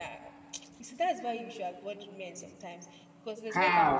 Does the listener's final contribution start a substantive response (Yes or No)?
Yes